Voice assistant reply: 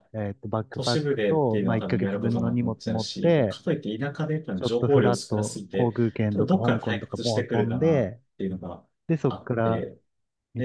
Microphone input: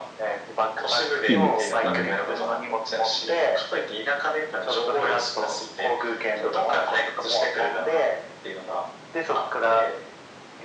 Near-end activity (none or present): present